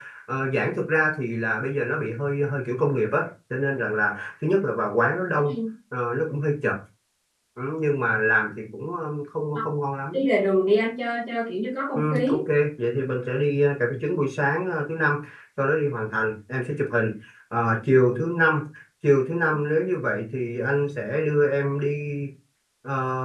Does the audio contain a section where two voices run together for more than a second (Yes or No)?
No